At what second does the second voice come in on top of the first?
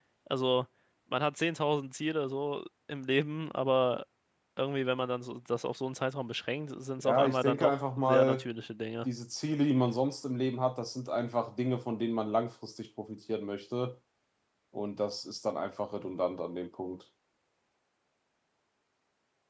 7.0 s

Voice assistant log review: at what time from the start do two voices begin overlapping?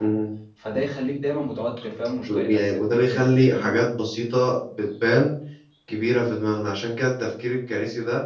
2.3 s

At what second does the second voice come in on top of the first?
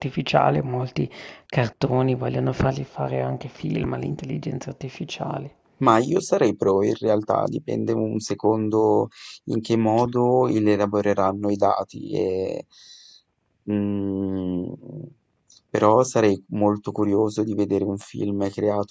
none

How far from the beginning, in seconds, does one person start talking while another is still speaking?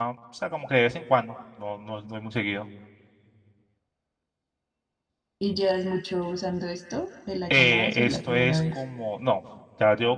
7.5 s

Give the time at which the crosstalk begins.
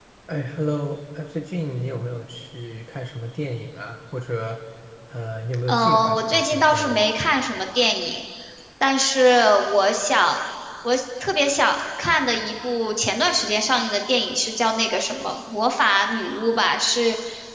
5.7 s

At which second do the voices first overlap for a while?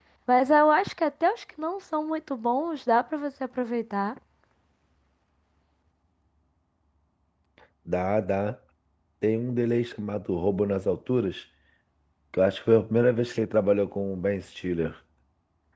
none

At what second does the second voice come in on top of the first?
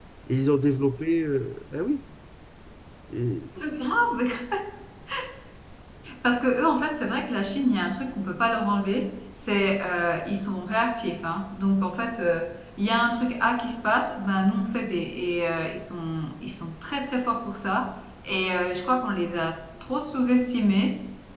none

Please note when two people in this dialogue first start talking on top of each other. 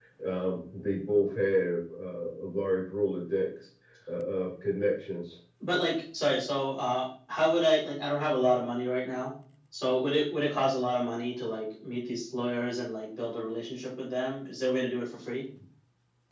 none

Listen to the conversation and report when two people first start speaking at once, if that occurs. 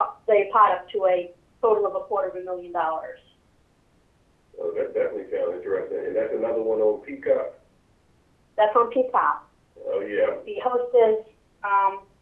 none

